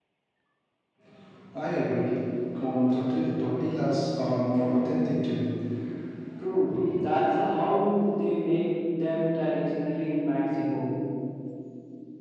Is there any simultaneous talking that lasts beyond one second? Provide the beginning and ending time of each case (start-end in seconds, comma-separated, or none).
none